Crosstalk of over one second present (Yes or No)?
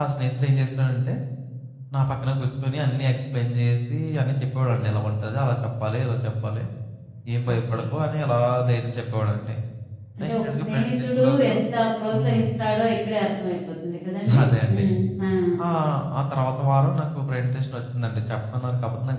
Yes